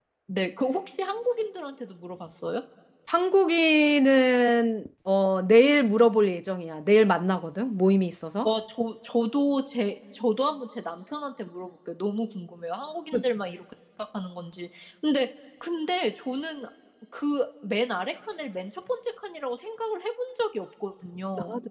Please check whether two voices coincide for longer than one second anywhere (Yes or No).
No